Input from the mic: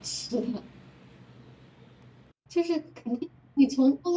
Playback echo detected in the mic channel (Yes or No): No